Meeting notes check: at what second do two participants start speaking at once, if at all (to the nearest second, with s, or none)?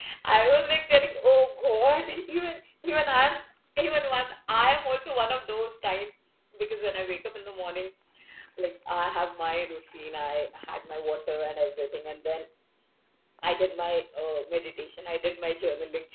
none